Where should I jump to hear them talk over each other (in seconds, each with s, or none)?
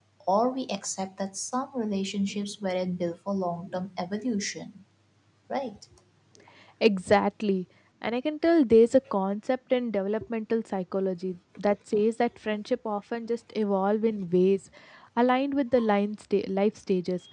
none